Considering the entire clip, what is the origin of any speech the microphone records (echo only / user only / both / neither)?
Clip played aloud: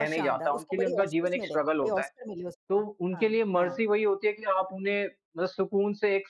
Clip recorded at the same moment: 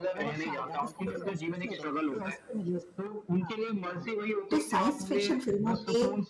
both